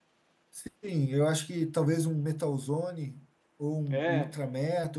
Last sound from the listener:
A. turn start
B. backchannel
B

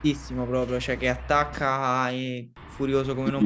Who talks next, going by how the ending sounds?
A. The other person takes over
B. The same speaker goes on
A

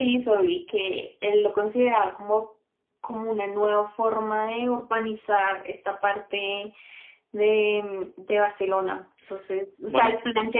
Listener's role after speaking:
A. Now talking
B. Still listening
B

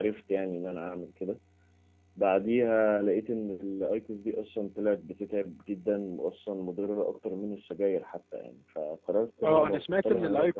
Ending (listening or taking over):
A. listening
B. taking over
B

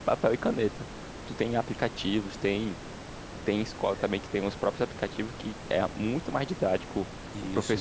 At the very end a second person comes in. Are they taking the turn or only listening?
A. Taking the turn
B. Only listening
B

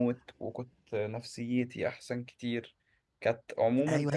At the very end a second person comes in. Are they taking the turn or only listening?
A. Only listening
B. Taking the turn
B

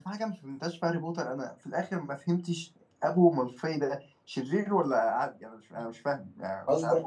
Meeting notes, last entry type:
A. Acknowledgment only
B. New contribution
B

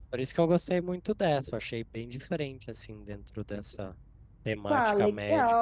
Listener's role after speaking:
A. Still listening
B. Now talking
B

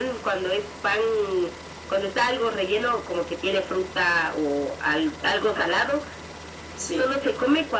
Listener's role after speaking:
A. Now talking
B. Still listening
B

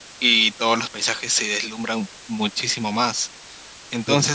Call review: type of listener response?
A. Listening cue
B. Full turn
A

